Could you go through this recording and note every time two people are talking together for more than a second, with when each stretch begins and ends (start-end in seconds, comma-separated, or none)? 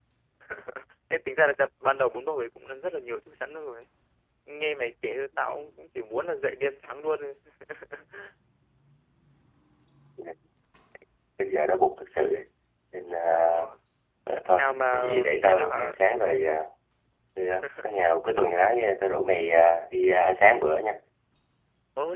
14.5-16.4